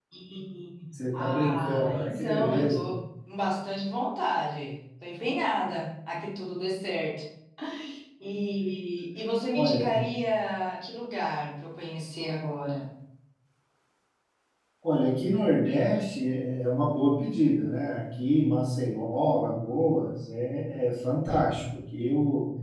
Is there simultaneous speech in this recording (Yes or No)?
Yes